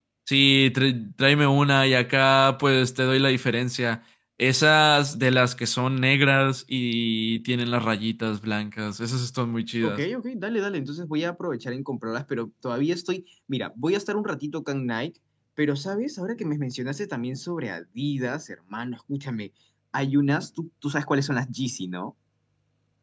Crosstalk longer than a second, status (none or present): none